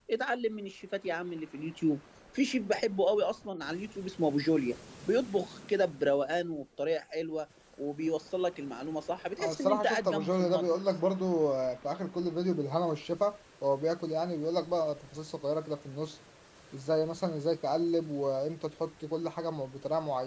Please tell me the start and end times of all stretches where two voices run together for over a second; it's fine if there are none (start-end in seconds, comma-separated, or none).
9.4-10.8